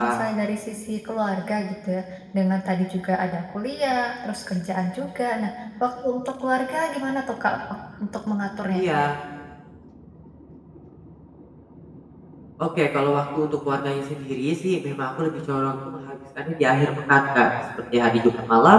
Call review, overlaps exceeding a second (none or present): none